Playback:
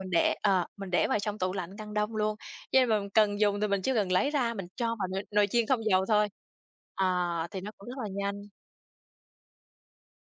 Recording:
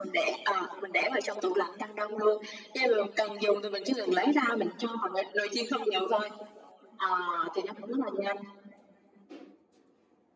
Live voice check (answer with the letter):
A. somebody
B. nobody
B